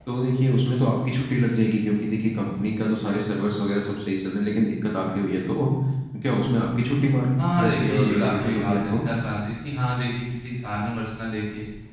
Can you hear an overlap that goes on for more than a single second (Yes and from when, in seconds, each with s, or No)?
Yes, from 7.4 s